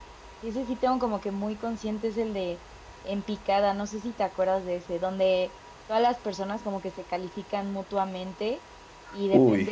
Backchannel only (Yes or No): Yes